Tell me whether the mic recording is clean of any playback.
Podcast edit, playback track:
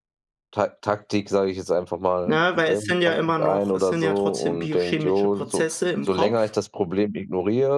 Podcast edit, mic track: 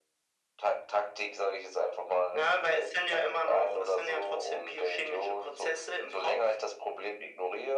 No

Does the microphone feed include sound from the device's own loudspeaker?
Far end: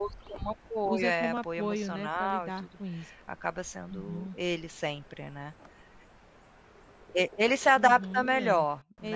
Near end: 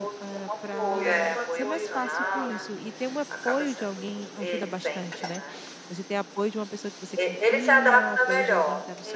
Yes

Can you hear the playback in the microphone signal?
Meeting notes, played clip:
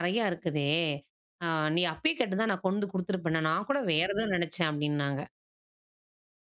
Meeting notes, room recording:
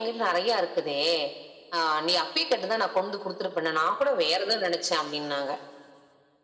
Yes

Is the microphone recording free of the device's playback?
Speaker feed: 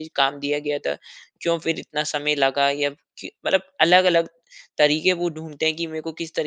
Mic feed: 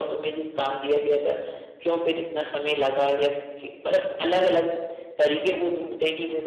No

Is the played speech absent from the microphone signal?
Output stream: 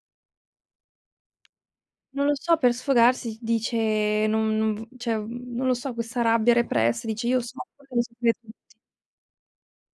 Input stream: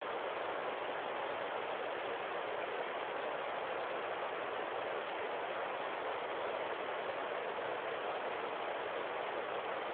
Yes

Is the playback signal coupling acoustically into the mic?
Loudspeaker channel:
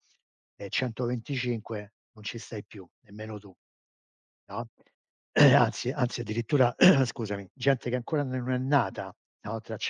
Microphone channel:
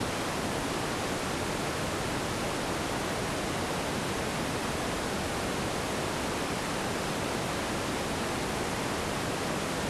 No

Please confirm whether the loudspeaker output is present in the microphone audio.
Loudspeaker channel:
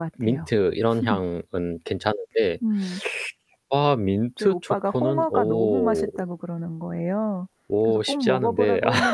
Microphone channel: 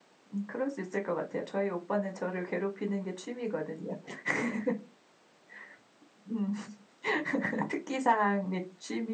No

